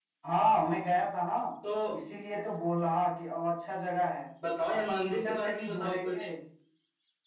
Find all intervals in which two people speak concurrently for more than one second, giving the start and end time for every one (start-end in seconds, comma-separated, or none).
4.7-6.3